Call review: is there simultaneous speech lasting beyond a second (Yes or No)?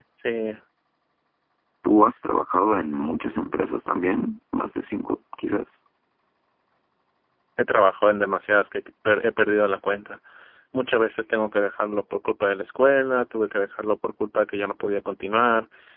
No